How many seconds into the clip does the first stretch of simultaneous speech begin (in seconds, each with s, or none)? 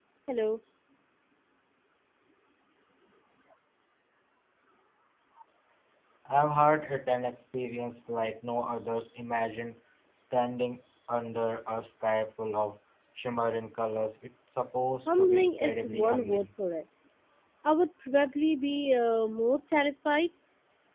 15.1 s